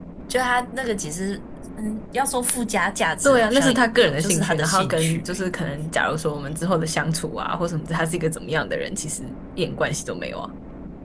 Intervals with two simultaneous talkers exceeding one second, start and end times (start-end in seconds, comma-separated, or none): 3.2-5.5